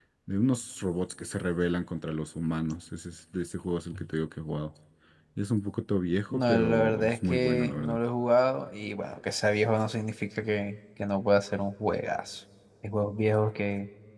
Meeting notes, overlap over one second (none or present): present